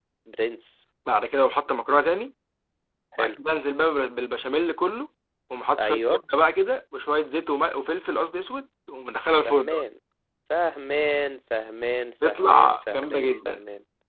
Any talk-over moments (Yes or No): Yes